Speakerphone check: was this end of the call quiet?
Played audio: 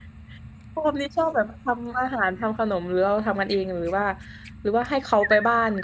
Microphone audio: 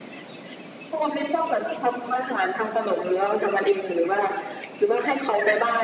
Yes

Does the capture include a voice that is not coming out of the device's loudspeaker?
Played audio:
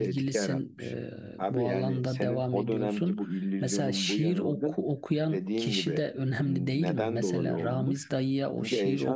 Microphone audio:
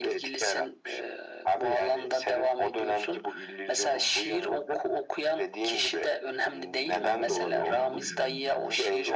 Yes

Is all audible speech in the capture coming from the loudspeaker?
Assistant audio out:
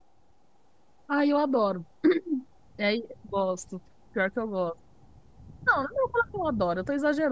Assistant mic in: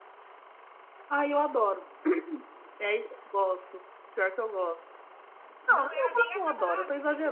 No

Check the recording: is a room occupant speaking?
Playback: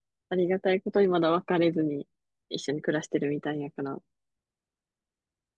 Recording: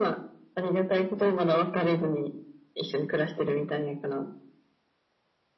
No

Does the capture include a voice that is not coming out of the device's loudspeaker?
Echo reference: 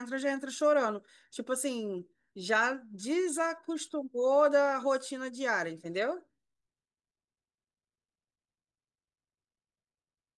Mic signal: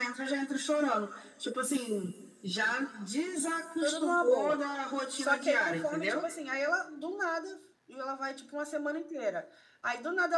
Yes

